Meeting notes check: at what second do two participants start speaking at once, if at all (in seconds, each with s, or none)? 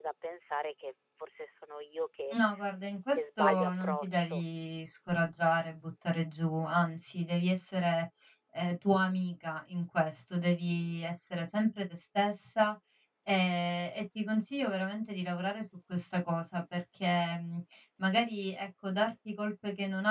3.1 s